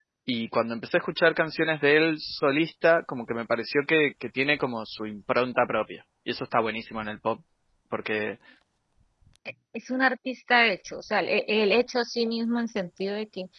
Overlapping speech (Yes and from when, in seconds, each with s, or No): No